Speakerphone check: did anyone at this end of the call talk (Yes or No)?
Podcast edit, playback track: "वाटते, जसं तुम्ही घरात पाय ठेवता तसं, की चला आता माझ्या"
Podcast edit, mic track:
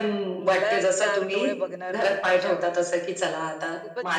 Yes